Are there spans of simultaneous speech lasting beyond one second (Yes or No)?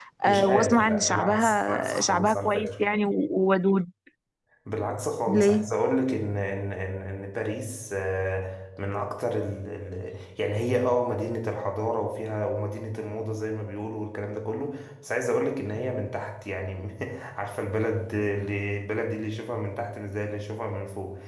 Yes